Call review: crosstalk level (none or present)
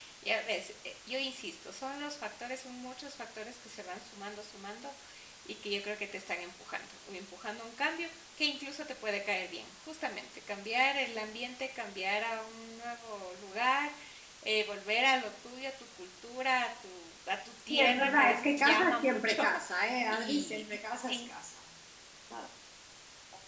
present